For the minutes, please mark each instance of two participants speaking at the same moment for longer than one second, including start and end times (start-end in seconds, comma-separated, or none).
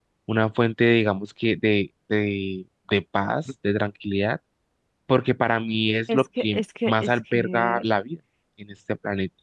6.1-7.8